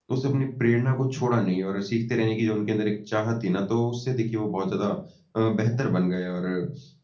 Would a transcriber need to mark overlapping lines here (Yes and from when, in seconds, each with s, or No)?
No